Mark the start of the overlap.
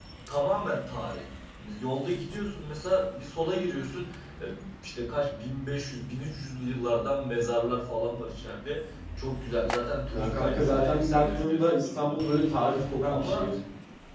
10 s

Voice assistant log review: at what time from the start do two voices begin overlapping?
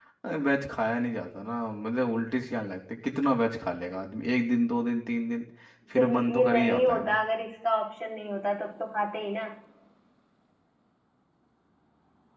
6 s

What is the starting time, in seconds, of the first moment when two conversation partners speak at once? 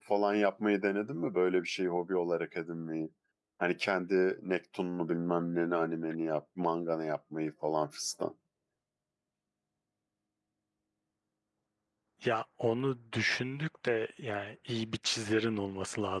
none

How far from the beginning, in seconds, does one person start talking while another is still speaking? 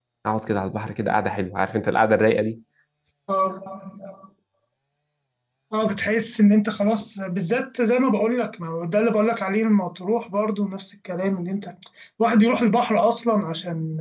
none

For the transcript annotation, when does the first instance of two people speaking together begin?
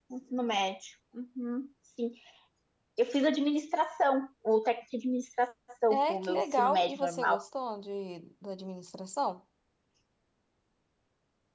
6 s

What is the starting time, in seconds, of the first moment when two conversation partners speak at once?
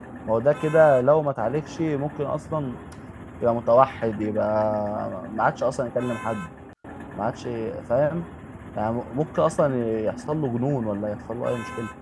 none

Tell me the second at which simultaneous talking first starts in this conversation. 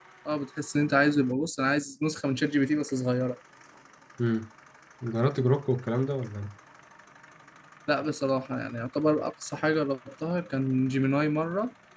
none

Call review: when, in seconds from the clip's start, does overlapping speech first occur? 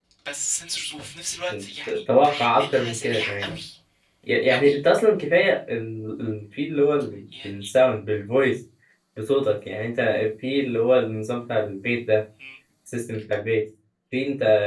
2 s

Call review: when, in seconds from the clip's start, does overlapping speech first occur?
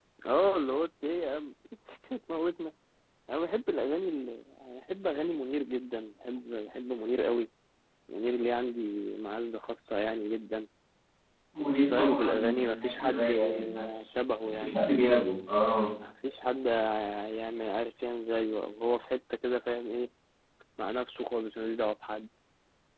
12 s

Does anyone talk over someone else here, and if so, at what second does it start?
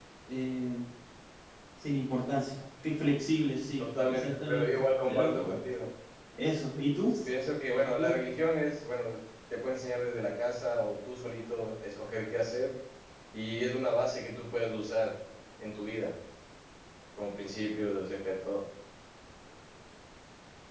4 s

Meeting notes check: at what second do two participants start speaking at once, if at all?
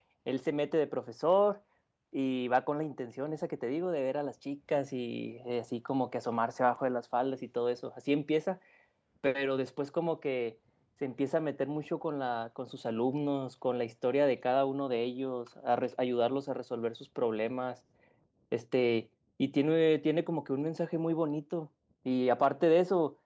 none

